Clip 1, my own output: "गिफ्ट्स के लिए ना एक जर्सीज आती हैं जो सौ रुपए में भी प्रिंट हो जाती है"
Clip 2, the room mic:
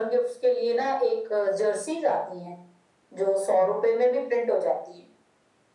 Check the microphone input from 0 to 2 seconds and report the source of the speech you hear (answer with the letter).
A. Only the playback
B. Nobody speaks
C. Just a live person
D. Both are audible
A